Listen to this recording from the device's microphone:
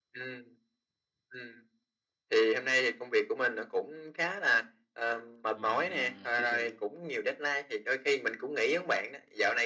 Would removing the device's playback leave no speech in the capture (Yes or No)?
No